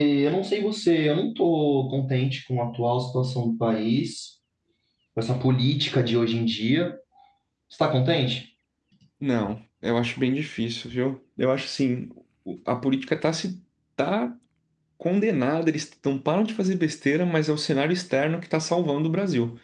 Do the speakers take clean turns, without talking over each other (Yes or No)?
Yes